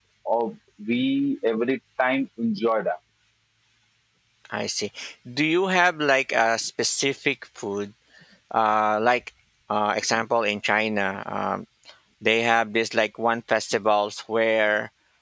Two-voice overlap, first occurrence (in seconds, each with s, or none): none